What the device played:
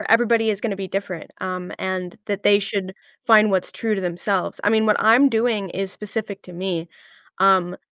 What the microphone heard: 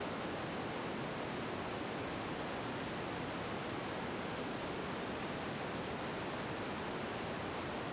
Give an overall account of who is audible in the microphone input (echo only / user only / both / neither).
neither